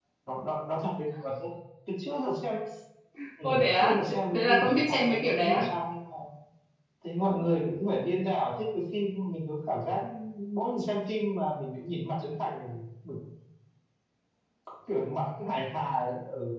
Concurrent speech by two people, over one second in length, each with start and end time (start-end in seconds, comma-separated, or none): 3.4-5.6